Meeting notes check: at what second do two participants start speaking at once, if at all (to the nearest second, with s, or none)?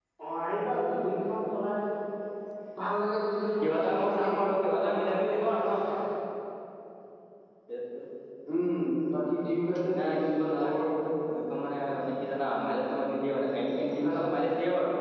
4 s